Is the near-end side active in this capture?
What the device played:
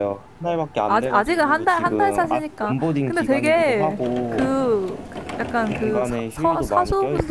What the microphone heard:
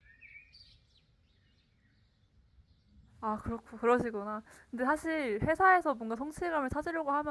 Yes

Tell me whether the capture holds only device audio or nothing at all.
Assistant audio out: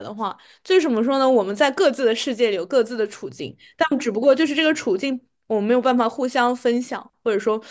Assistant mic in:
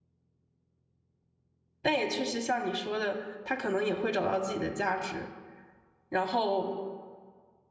No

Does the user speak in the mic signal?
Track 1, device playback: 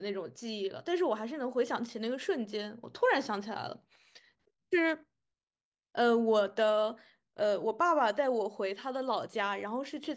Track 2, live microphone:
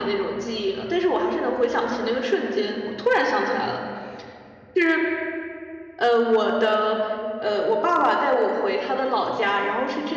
No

